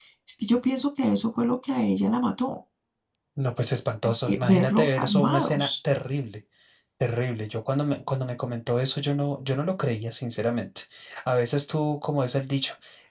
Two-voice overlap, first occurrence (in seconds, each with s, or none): 4.0 s